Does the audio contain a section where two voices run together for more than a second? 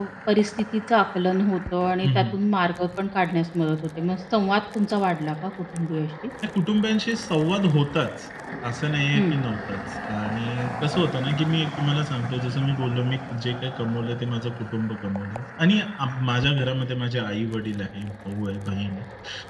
No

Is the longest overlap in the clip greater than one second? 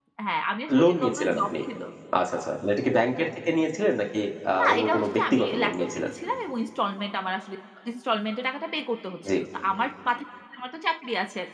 Yes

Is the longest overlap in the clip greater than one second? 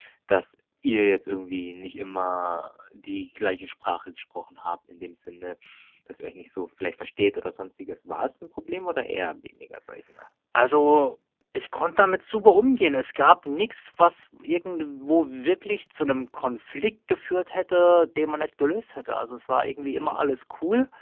No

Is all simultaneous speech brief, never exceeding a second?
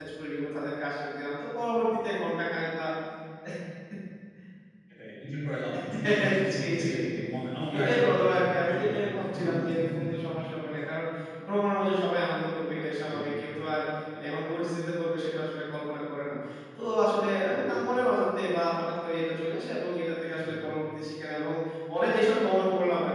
No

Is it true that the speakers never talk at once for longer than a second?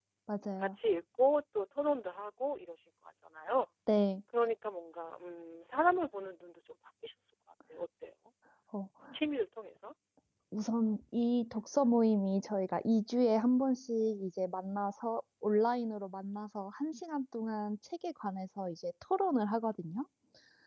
Yes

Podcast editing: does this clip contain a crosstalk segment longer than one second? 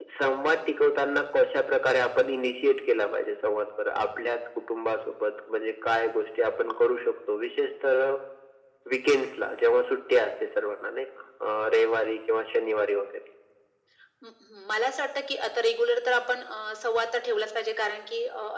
No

